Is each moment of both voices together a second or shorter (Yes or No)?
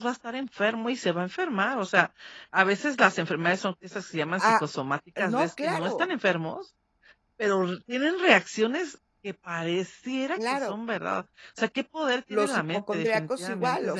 No